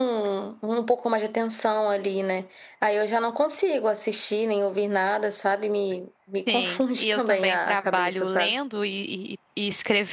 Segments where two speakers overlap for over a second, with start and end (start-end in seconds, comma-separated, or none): 6.5-8.5